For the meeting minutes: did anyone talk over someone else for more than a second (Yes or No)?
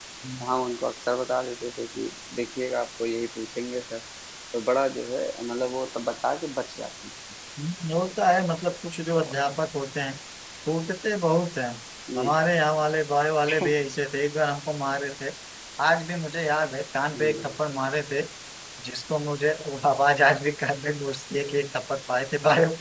No